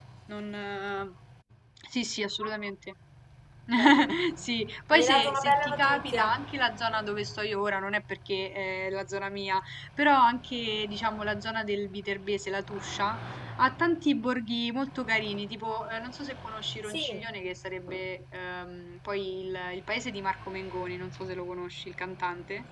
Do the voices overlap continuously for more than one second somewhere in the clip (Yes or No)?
Yes